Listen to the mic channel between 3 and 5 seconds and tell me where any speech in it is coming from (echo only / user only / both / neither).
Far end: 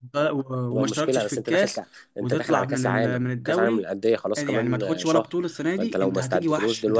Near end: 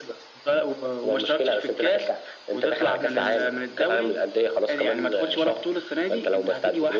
echo only